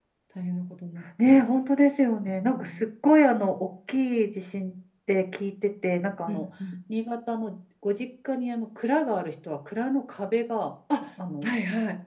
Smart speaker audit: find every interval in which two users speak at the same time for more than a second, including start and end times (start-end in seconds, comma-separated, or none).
none